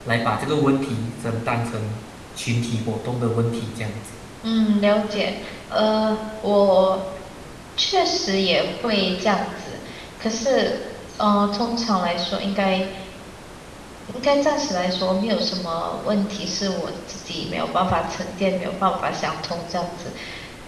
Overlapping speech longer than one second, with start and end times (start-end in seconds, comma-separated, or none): none